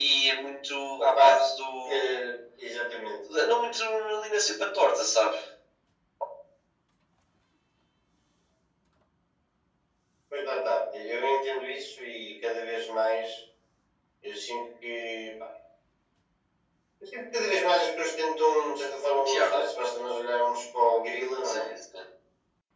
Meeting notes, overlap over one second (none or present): none